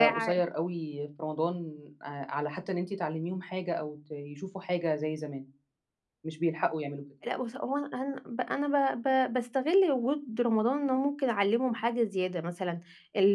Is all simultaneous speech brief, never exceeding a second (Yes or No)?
Yes